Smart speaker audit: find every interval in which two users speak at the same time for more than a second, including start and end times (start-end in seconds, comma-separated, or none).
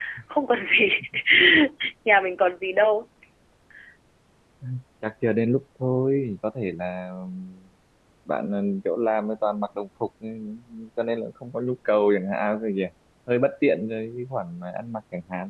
none